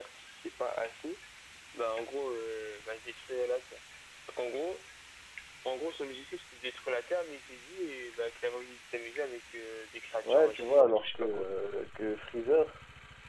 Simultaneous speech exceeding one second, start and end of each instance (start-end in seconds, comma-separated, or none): 10.2-11.5